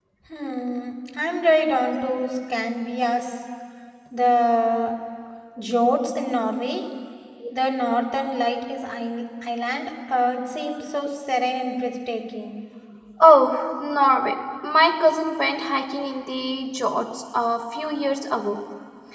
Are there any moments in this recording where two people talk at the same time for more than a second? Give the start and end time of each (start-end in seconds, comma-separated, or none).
none